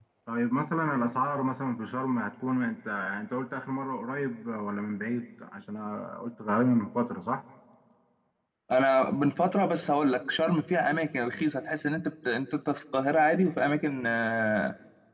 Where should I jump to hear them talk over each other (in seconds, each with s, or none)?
none